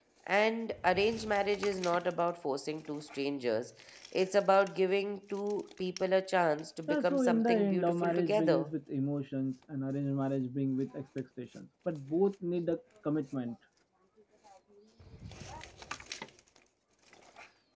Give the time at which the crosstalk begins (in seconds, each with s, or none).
6.9 s